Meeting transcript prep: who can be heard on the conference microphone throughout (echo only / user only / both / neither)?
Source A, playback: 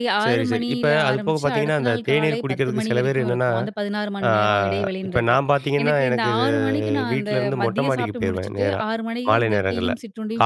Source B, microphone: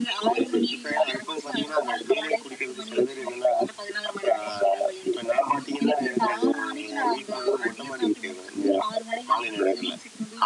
echo only